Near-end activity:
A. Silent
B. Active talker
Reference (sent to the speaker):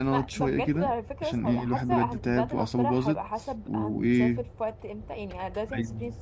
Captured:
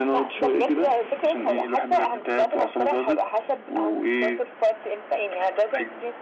A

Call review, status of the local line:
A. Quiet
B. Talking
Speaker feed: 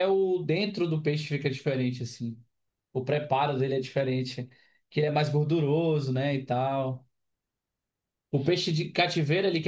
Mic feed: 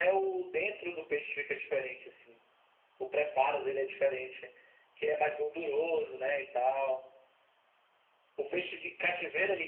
A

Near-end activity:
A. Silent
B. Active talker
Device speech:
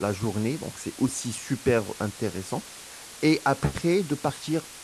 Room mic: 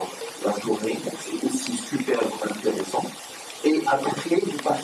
A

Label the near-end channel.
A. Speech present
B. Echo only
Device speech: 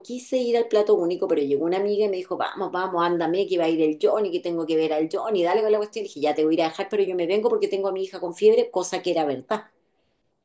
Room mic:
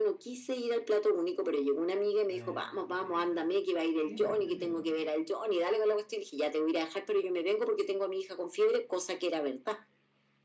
A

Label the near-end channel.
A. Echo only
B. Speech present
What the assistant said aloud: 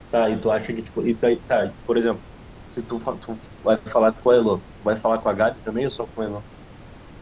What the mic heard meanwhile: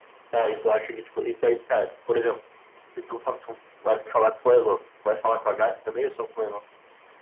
A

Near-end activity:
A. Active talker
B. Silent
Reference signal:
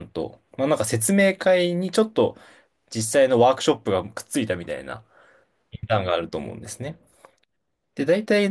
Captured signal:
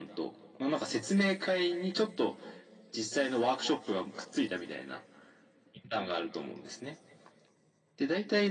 B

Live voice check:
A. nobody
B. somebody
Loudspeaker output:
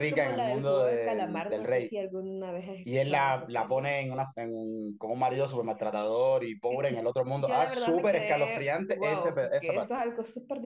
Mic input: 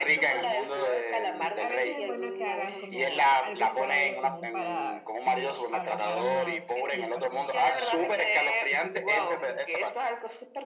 B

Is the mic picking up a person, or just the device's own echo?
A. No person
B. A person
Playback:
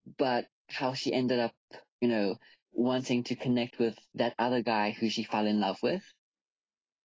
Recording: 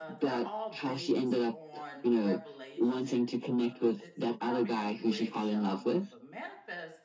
B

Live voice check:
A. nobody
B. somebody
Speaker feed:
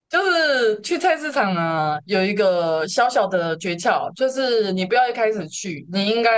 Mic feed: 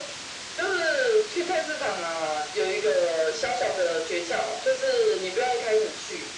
A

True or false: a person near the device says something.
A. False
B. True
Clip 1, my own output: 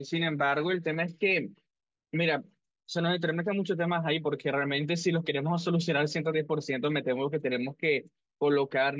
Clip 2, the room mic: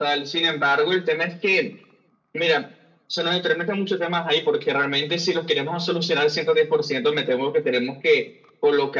A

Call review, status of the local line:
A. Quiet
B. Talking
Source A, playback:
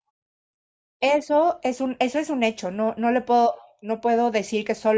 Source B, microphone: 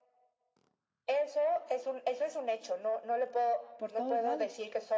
B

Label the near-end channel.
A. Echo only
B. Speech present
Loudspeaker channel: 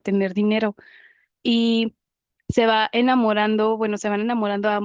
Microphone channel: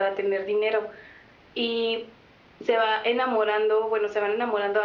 A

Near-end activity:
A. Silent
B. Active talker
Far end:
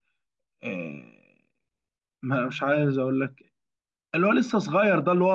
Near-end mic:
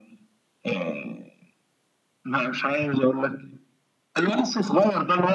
A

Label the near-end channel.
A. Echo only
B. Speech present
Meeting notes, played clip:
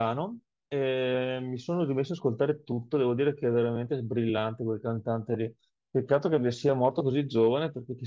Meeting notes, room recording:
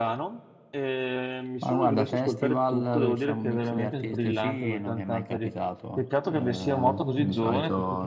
B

